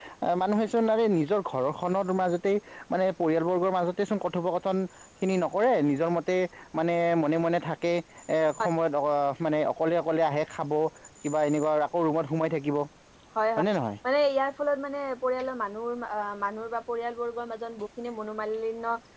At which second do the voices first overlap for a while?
none

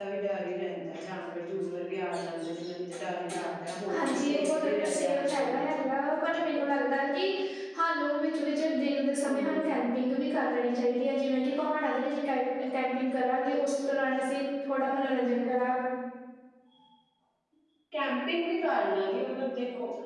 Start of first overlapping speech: 3.9 s

